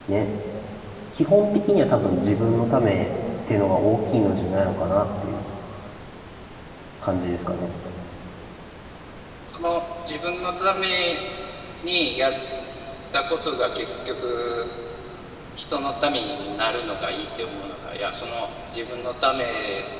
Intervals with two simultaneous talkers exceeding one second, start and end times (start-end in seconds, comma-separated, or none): none